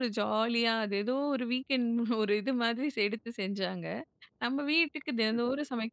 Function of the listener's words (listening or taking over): listening